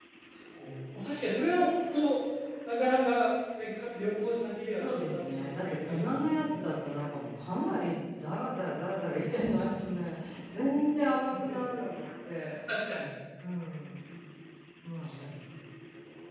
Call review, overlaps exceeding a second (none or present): present